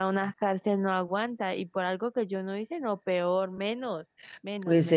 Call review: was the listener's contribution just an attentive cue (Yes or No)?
No